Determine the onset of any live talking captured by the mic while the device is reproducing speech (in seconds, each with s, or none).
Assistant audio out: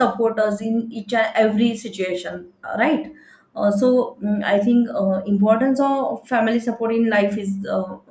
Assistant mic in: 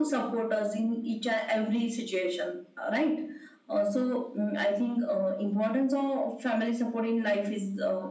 none